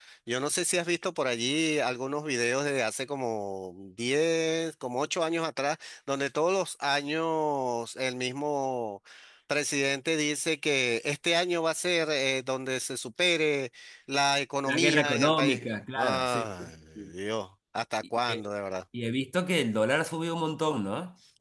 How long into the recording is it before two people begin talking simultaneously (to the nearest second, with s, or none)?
15 s